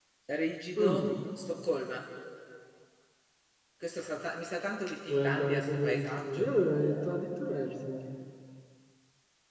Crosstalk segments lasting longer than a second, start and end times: 5.1-6.5

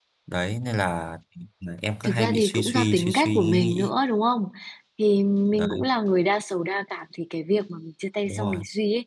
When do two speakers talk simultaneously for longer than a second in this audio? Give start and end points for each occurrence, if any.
2.0-3.9

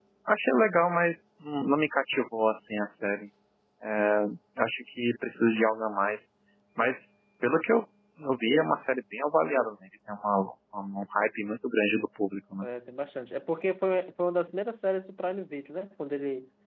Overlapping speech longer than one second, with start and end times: none

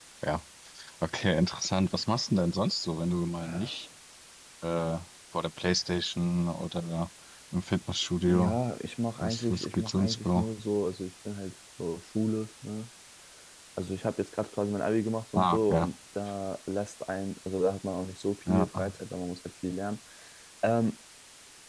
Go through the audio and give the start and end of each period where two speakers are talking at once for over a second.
9.2-10.5

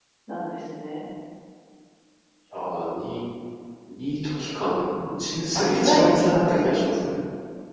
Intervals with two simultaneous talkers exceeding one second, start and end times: 5.5-6.9

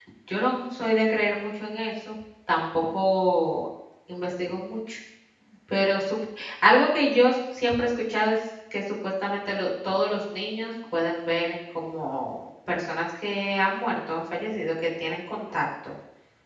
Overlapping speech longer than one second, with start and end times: none

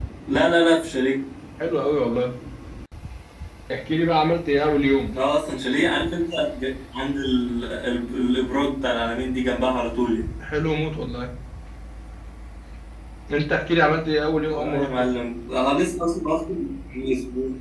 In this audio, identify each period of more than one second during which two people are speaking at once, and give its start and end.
none

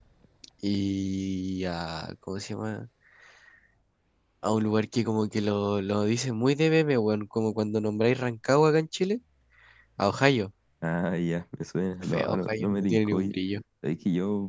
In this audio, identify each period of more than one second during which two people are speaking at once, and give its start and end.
12.0-13.3

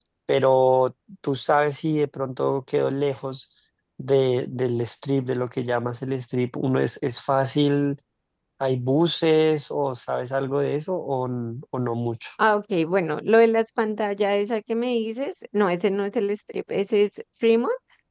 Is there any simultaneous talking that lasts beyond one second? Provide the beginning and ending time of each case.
none

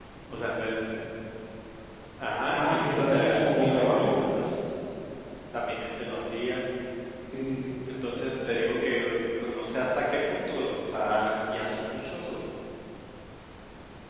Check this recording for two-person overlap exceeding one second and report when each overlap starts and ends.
2.5-4.2

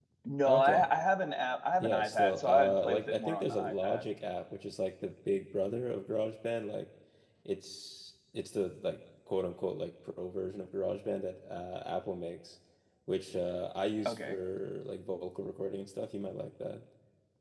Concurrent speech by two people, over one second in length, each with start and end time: 1.7-4.0

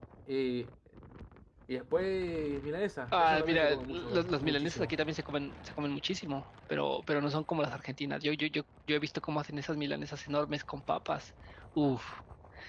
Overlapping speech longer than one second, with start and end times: 3.1-4.9

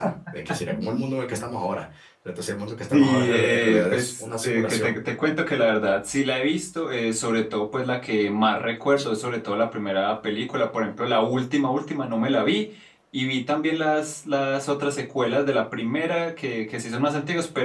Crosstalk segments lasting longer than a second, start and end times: 2.9-4.9

